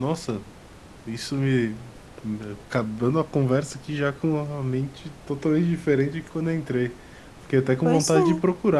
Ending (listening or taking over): listening